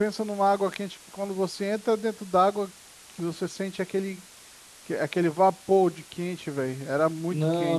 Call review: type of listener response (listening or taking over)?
taking over